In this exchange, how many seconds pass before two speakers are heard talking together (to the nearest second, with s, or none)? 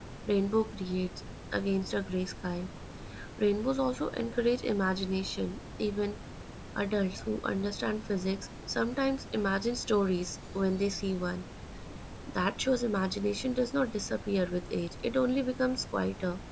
none